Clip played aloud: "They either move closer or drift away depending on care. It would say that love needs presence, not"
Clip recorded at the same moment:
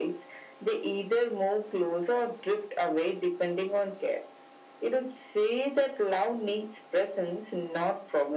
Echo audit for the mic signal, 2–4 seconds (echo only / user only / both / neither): echo only